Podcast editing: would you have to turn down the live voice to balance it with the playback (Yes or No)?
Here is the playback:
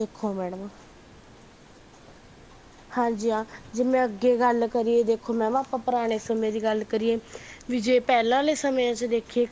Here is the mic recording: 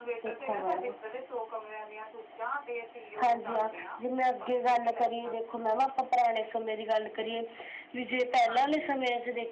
No